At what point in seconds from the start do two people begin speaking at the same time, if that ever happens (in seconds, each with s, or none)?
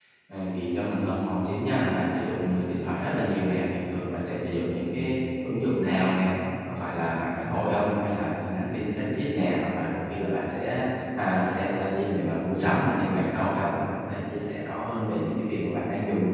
none